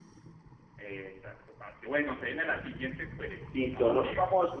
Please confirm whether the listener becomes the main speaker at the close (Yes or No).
Yes